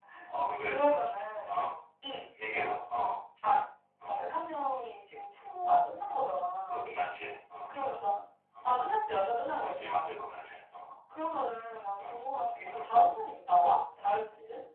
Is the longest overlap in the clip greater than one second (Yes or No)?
No